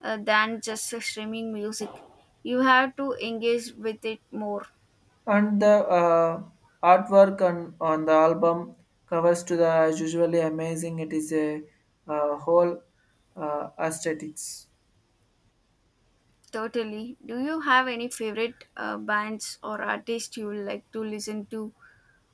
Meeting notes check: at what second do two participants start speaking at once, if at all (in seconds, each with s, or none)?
none